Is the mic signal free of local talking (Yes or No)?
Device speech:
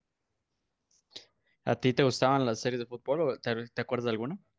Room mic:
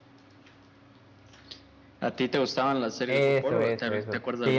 No